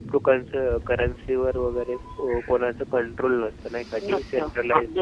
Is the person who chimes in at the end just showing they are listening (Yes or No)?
No